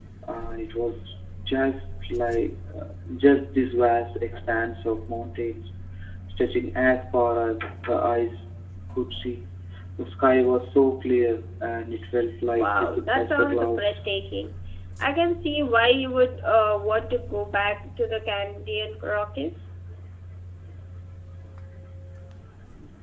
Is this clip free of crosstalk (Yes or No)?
No